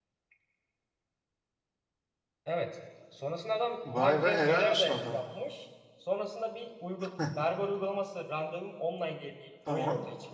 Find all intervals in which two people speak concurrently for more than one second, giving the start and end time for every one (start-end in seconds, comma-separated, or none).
4.0-5.2